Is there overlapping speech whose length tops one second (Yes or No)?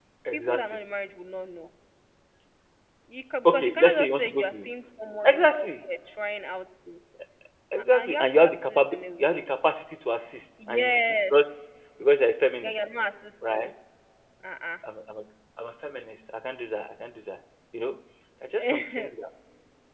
Yes